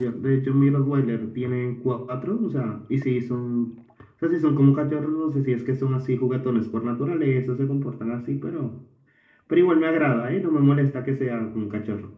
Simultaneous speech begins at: none

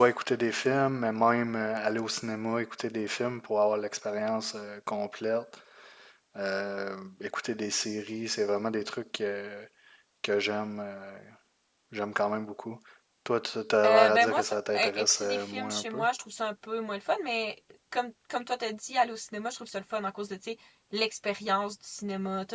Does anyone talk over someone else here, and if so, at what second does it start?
14 s

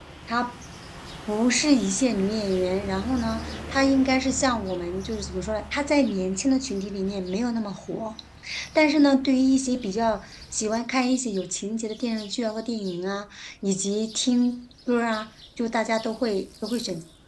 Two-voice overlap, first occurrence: none

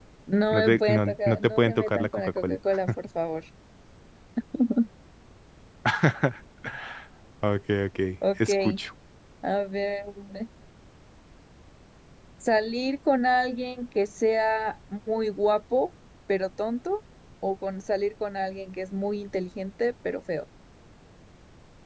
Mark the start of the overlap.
1 s

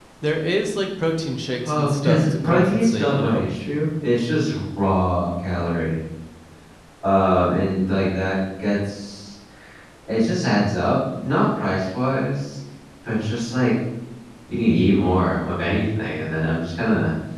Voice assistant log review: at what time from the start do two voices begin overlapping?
2 s

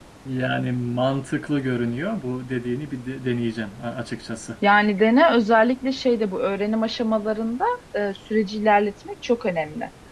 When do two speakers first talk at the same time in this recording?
none

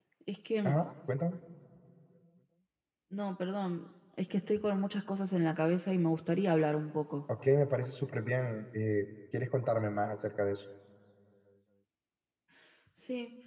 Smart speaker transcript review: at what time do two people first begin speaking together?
none

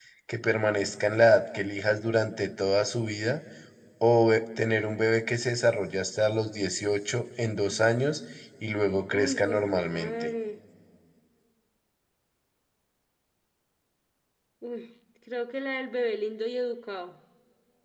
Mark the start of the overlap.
9 s

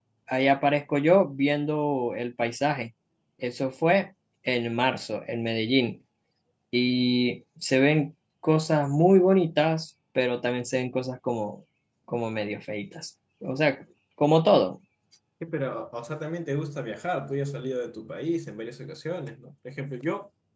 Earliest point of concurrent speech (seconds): none

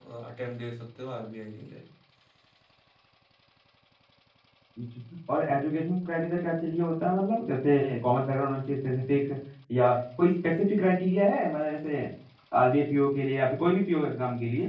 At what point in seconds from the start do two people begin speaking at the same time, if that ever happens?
none

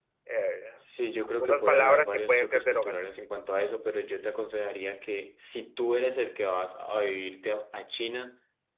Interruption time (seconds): 1 s

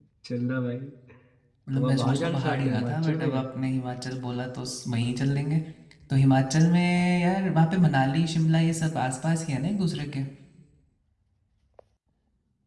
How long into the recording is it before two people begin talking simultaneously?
2 s

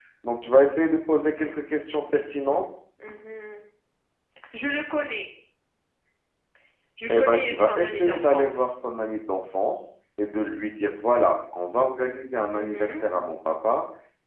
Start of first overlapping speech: 7 s

